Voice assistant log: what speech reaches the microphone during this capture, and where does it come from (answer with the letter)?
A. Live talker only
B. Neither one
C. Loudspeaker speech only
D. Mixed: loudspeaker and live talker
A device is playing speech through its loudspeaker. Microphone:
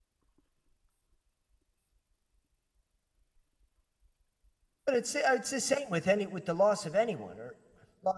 A